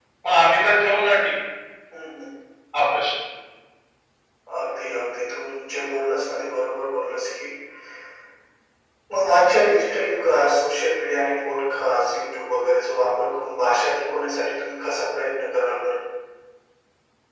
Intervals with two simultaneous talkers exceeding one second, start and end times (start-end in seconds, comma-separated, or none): none